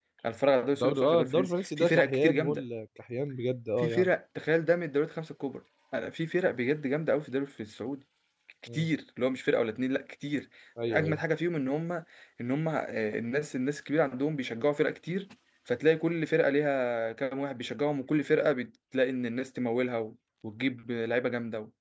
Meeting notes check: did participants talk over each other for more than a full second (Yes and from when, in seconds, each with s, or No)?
Yes, from 0.7 s